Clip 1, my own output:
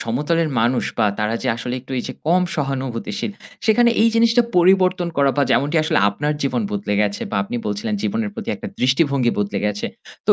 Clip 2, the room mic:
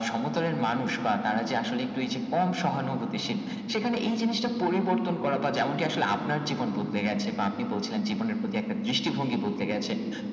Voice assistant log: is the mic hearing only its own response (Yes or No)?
Yes